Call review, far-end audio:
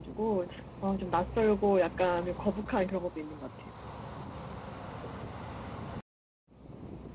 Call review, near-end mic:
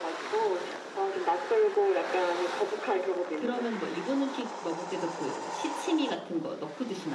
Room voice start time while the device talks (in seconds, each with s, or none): 3.4 s